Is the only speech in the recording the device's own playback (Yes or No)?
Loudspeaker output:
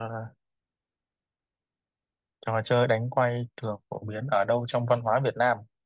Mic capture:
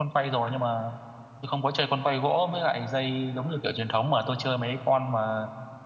No